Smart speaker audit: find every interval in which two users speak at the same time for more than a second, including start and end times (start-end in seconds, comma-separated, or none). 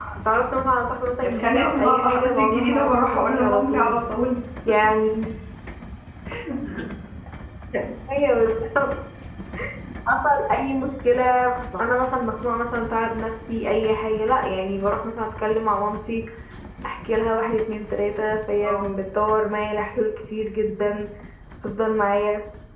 1.2-4.0